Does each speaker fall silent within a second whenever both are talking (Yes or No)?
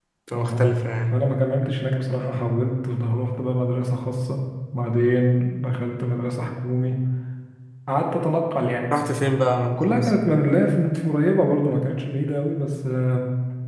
Yes